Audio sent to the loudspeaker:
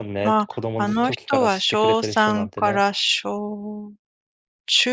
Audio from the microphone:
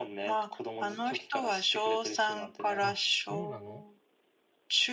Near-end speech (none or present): present